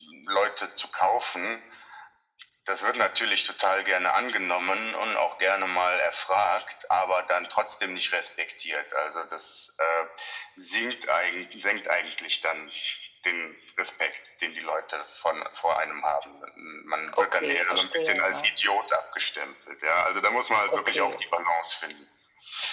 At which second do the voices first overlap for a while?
17.2 s

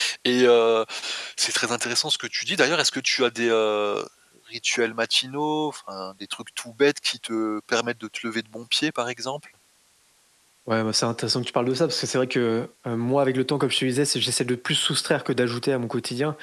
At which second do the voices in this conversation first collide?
none

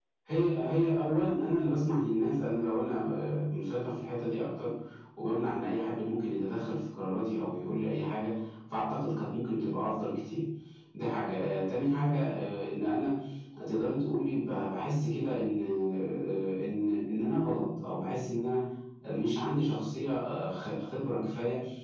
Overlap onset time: none

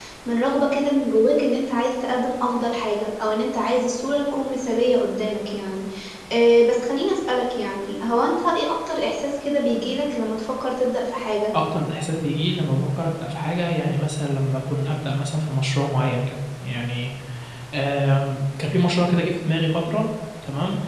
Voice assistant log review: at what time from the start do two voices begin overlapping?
none

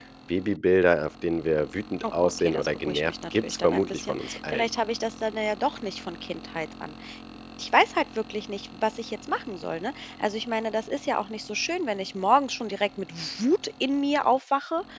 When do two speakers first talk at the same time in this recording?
2.0 s

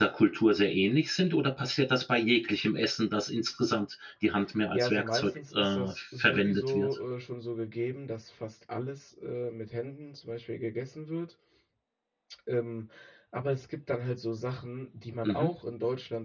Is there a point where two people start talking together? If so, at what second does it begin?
4.7 s

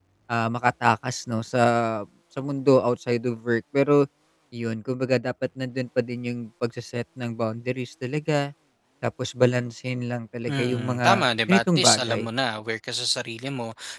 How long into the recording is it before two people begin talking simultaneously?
10.5 s

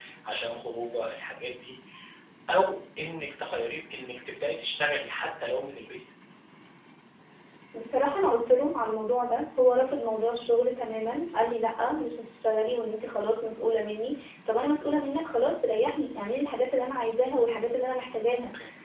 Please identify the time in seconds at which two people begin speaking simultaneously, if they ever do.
none

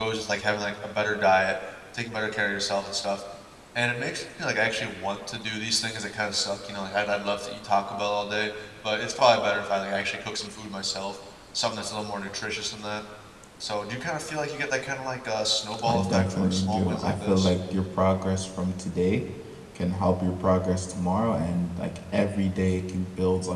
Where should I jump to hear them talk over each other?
15.7 s

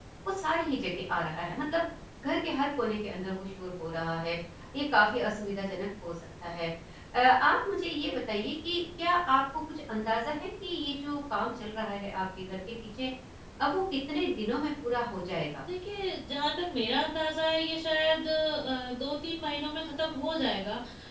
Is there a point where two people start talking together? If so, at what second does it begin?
none

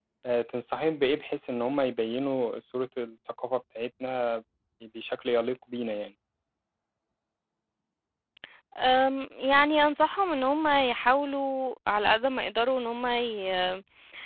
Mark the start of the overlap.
none

